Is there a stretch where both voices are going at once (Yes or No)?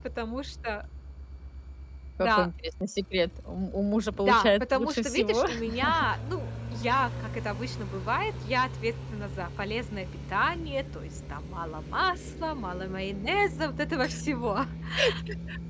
Yes